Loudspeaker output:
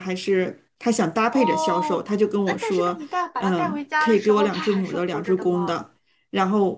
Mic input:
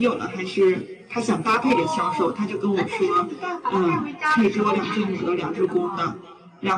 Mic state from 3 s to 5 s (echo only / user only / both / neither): echo only